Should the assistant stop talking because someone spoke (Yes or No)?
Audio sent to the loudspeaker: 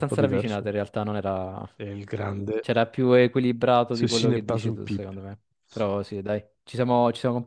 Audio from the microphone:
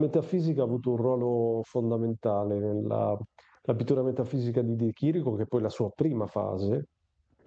Yes